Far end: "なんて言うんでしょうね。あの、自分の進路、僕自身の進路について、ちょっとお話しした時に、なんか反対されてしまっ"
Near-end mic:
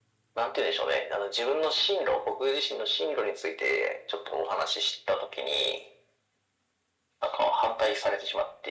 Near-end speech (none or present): none